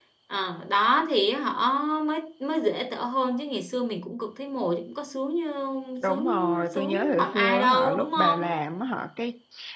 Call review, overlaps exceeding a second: present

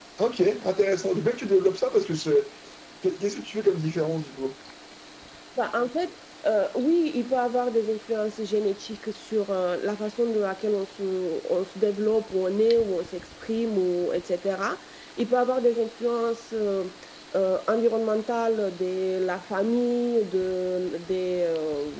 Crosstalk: none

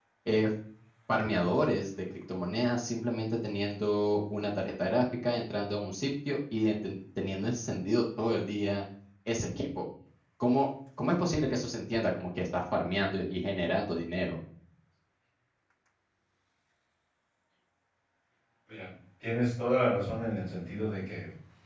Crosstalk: none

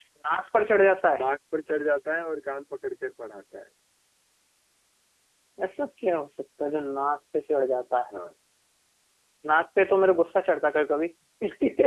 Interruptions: none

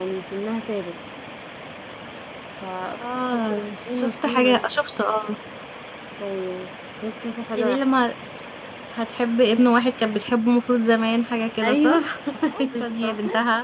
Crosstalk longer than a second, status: present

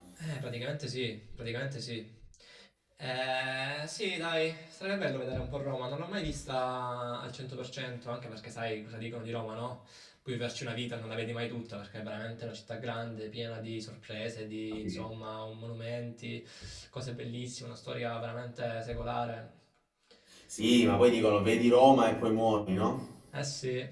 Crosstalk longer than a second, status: none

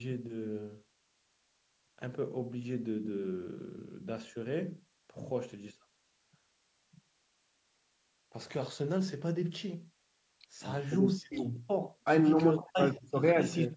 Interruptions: present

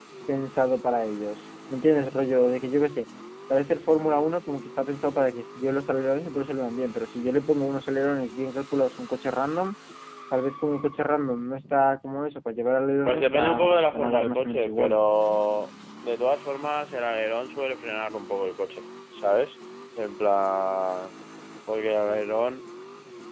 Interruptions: present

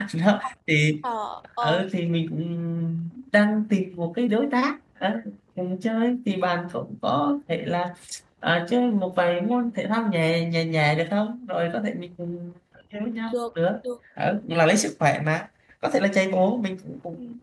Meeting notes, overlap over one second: none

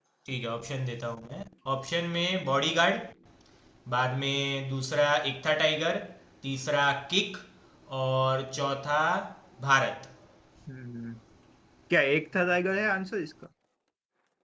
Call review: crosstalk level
none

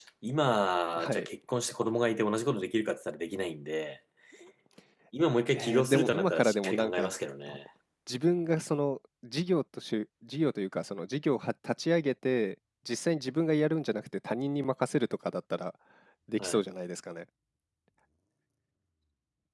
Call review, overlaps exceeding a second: present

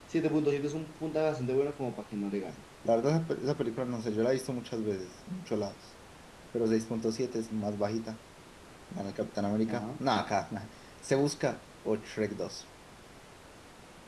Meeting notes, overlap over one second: none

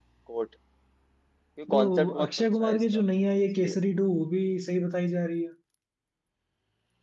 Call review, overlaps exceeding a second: present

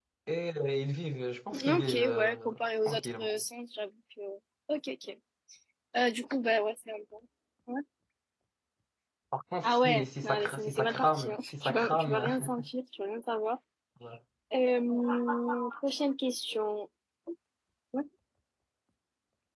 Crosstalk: present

